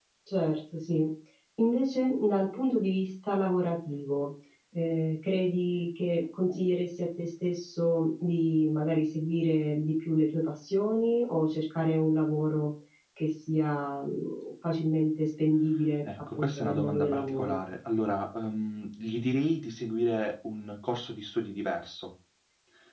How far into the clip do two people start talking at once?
16.3 s

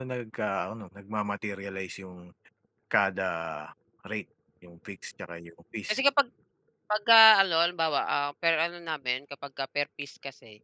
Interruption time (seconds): none

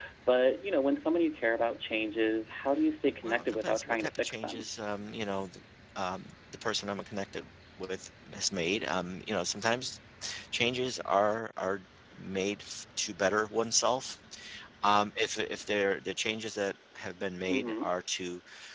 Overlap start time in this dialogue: 3.2 s

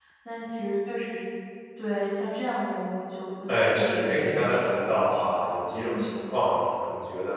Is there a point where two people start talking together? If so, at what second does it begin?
3.5 s

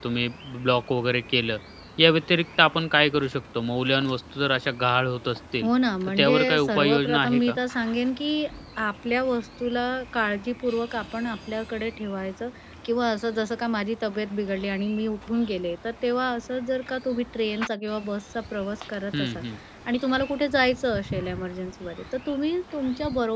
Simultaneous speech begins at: 6.1 s

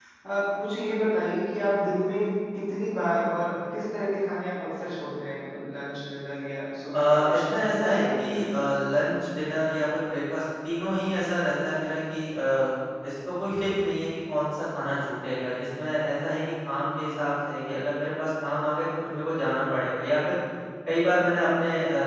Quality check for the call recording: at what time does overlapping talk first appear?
6.9 s

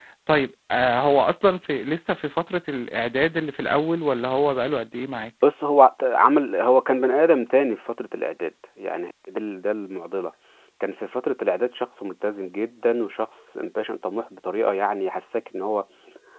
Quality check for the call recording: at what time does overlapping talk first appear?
none

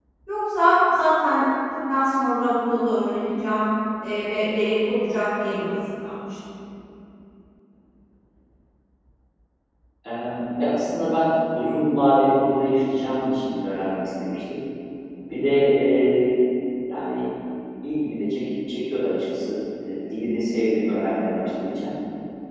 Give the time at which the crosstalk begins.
none

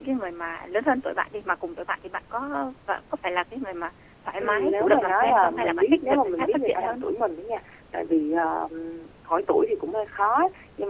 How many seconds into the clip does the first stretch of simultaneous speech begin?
4.4 s

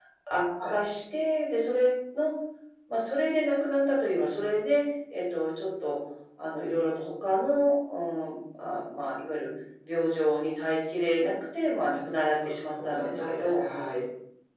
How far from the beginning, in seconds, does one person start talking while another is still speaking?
12.4 s

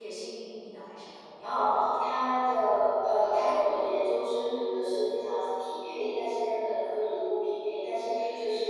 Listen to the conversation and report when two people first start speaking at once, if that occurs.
1.4 s

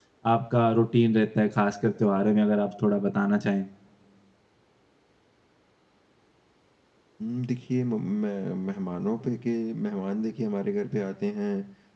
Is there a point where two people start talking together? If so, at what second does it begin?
none

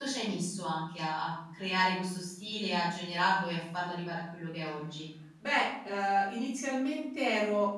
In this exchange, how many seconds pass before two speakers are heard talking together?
none

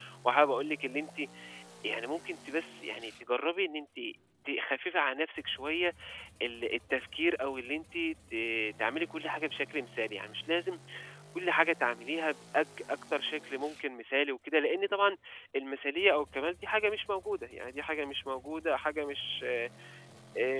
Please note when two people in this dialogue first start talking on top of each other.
none

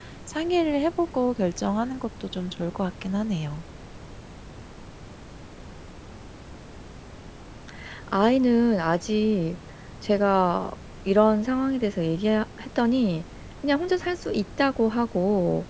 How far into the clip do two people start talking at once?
none

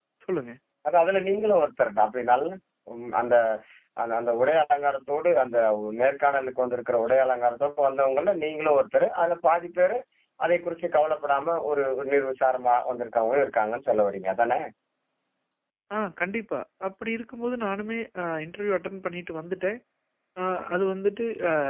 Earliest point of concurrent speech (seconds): none

